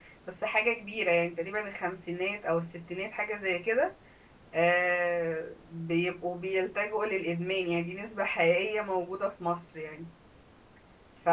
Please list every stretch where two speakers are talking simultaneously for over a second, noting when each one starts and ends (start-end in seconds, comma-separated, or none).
none